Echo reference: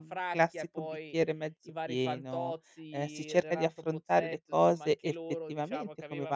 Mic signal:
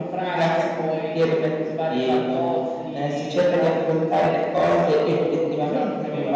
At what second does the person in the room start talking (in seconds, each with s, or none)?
none